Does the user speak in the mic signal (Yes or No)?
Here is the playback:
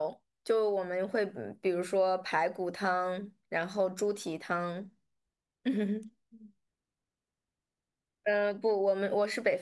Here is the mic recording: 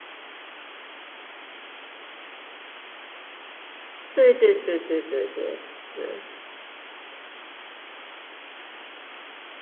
Yes